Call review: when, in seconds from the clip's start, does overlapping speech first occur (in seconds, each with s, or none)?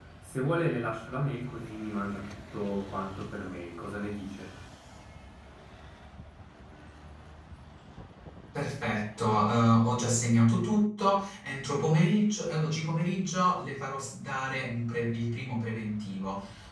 none